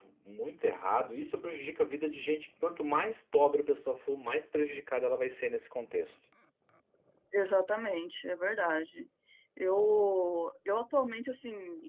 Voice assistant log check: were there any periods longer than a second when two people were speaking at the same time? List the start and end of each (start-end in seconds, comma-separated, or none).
none